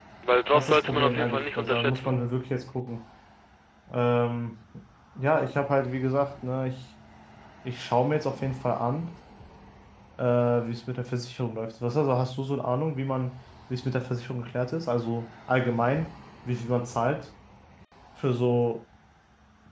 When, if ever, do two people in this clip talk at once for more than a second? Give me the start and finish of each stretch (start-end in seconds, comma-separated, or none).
0.5-2.1